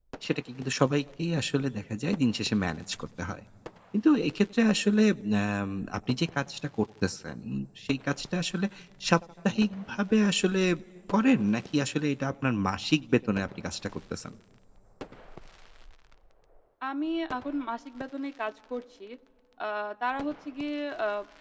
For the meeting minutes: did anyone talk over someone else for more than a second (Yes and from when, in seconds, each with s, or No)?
No